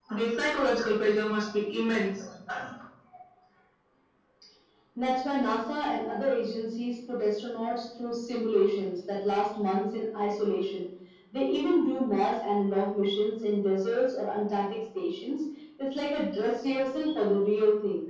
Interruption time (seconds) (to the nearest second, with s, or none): none